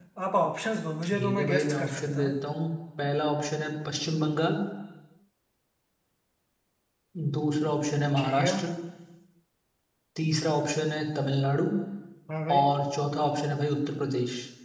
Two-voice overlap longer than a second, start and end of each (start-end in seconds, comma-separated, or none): 1.0-2.4